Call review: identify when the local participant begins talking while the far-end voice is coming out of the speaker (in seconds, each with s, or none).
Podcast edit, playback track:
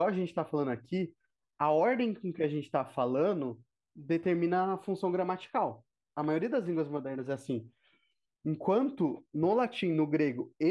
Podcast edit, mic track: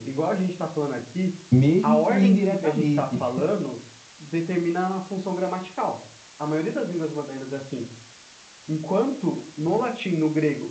1.5 s